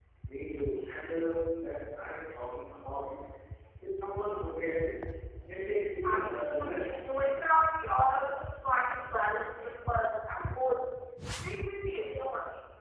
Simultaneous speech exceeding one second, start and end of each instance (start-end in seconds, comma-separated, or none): 6.0-7.5